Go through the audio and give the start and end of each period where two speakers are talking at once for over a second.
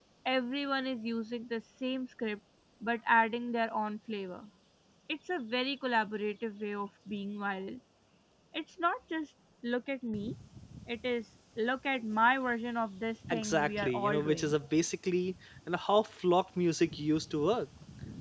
13.3-14.6

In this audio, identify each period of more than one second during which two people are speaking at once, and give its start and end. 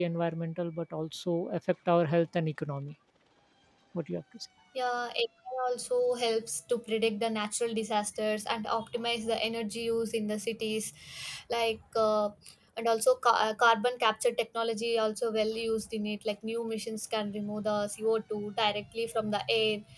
none

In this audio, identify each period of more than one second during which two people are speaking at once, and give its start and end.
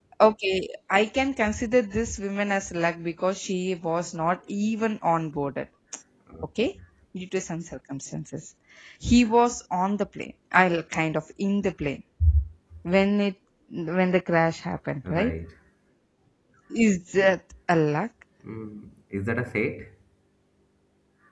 none

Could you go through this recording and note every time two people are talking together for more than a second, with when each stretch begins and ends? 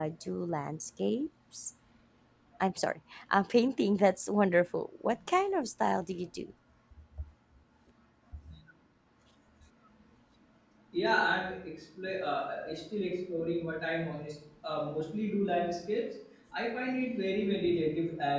none

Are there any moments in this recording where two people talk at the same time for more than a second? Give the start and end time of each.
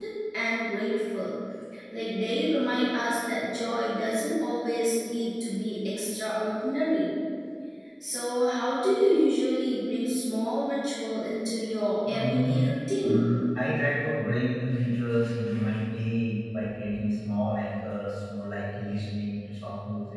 12.1-13.3

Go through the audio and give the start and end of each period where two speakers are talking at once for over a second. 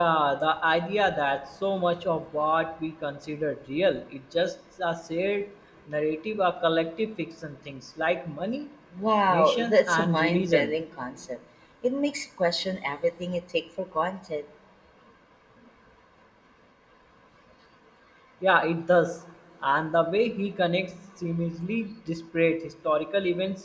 9.3-10.8

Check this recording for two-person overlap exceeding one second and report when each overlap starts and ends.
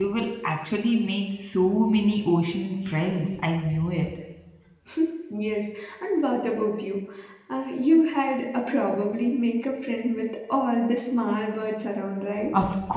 none

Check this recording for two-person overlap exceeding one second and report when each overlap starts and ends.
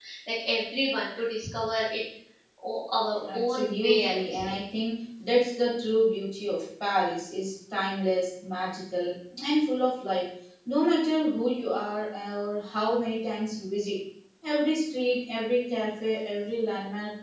3.3-4.5

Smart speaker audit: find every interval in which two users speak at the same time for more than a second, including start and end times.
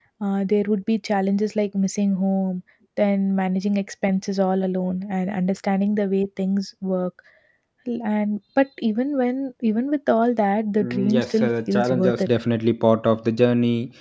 10.8-12.3

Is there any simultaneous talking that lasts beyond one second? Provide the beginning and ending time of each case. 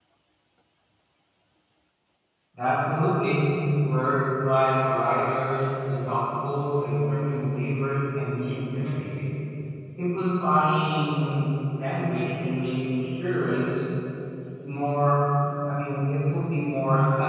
none

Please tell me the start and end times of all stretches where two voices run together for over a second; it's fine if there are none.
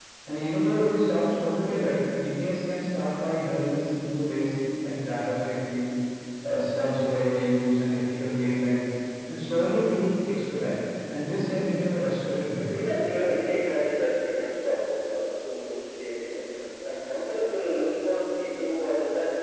none

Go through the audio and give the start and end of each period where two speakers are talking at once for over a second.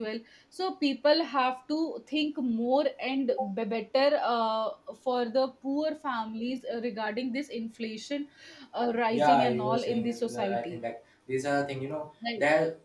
9.1-10.8

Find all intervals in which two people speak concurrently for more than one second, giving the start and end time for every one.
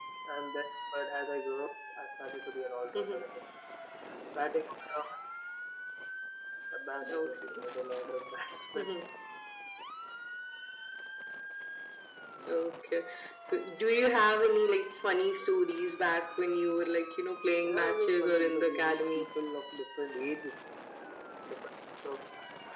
17.6-19.2

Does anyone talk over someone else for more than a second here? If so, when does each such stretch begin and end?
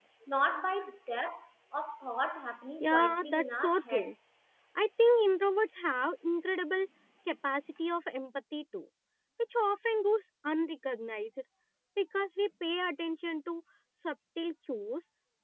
2.8-4.1

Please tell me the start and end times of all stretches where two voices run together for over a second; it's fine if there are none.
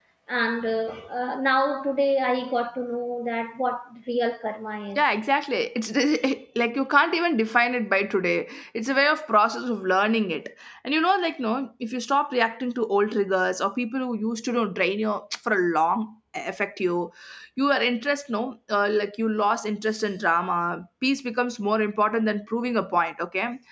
none

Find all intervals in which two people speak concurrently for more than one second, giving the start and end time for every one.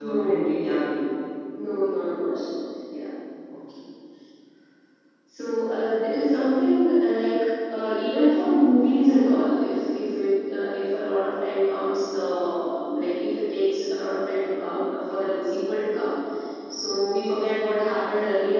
none

